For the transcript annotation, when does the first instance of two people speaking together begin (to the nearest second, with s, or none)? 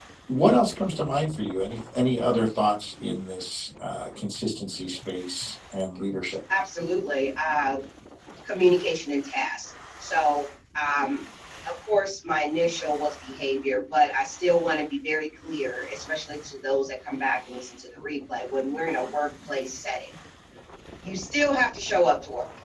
none